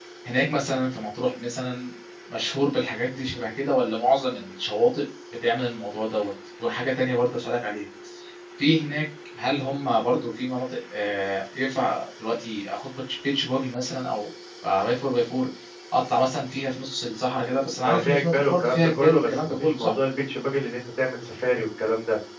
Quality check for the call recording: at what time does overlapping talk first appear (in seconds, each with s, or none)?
17.8 s